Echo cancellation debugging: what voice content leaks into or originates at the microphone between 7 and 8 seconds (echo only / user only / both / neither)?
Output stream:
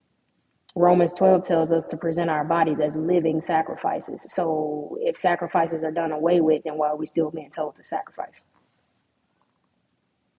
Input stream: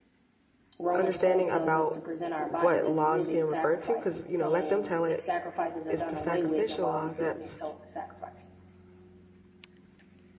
both